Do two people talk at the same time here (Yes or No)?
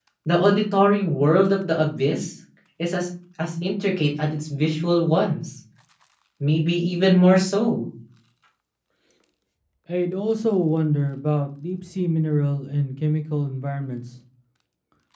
No